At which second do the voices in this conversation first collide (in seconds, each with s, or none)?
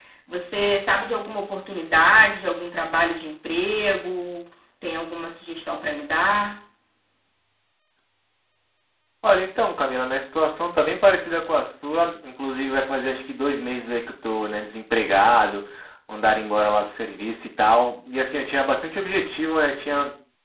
none